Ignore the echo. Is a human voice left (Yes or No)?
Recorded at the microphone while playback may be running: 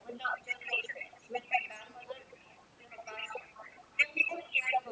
No